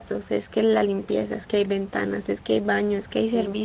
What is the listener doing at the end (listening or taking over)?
listening